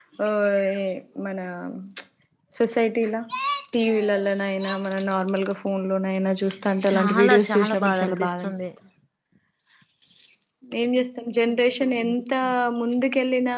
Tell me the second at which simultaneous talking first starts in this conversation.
6.8 s

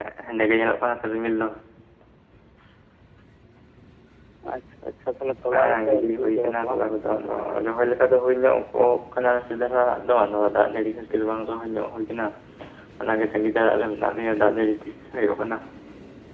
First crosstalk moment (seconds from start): 5.5 s

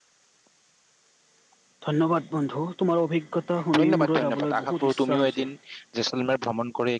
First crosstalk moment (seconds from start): 3.7 s

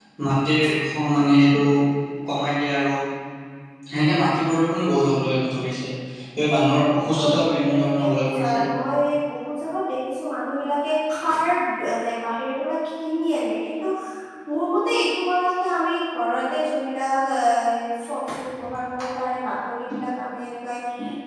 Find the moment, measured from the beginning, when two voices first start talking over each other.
7.1 s

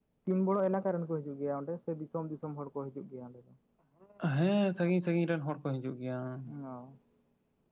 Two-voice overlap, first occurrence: none

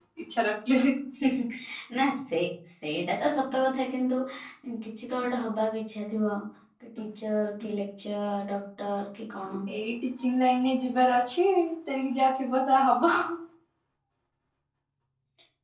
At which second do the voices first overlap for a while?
none

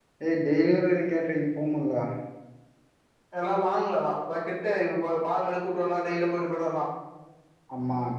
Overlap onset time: none

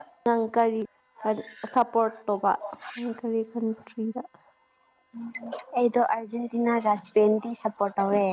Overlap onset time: none

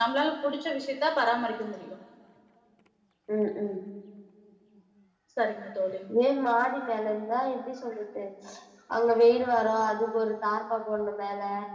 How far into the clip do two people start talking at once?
none

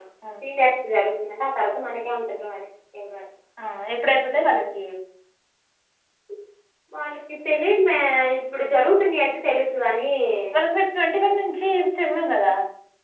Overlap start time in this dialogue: none

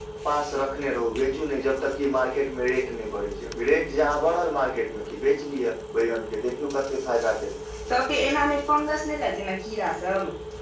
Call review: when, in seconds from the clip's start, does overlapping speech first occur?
none

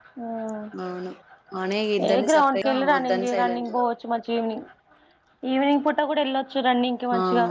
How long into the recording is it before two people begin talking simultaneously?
2.1 s

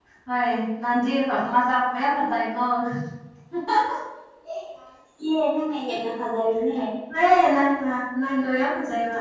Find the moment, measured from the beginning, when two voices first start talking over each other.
none

